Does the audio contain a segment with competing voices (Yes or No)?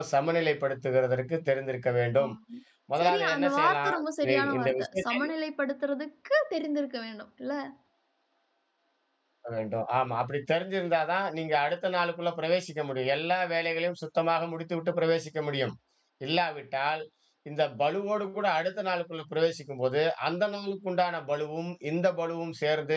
Yes